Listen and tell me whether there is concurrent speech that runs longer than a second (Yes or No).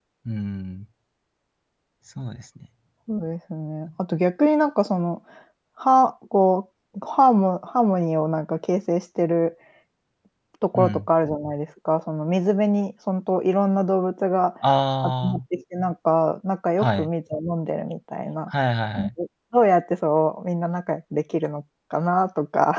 No